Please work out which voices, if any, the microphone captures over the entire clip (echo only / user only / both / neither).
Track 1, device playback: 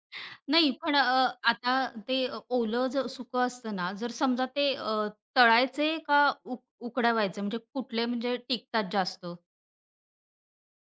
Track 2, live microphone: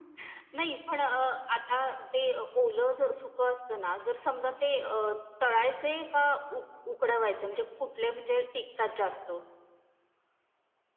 echo only